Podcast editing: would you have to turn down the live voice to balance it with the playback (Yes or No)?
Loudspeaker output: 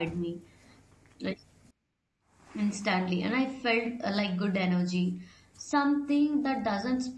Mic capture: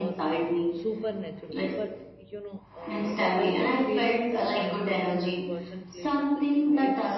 No